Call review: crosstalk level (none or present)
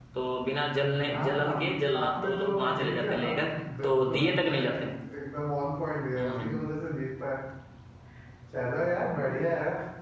present